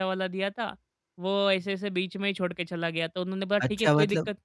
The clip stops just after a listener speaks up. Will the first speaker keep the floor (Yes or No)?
No